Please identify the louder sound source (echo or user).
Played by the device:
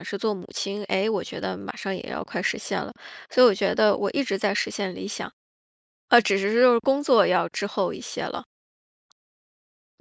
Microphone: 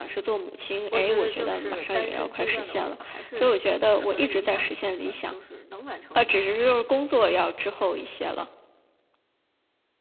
echo